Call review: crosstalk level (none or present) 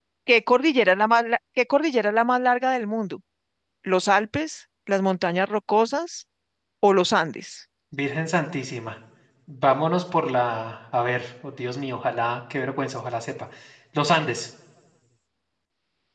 none